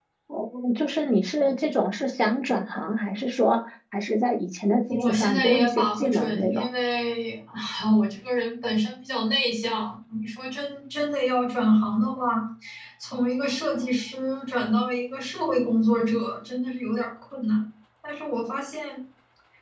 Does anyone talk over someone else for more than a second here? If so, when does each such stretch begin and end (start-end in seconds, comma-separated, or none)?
4.9-6.7